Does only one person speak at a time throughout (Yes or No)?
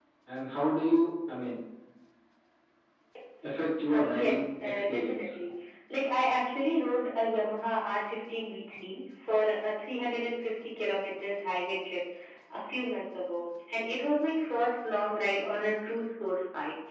No